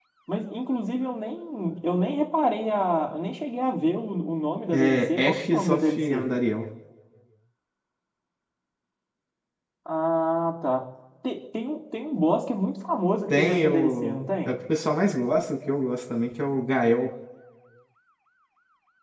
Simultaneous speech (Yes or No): Yes